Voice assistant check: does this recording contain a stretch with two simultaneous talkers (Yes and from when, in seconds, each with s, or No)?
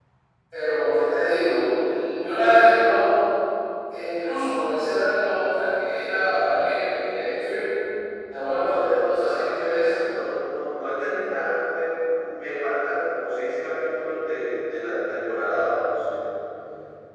Yes, from 8.7 s